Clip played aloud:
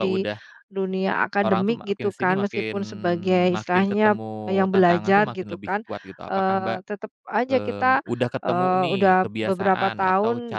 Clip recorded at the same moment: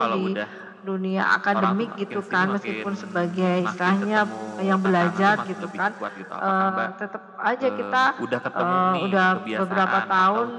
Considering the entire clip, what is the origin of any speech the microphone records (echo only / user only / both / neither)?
echo only